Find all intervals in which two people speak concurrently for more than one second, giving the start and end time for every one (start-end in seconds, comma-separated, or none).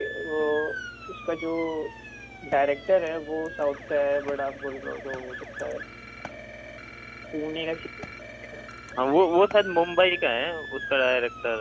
none